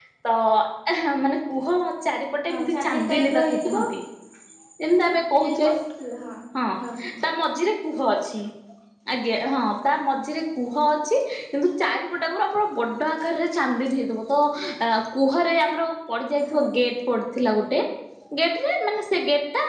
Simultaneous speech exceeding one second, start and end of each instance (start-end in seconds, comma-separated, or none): 2.5-3.8